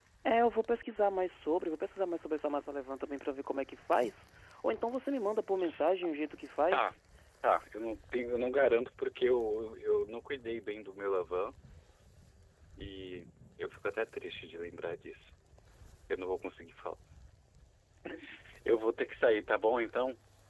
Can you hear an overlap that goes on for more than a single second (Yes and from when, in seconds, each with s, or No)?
No